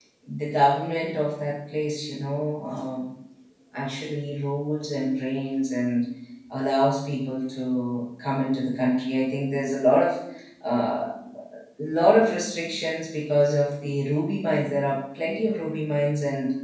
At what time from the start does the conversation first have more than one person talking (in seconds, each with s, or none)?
none